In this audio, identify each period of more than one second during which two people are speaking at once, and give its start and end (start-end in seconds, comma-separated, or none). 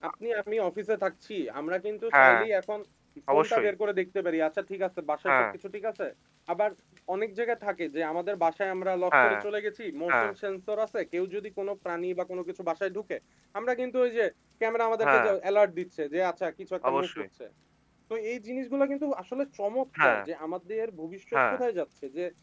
none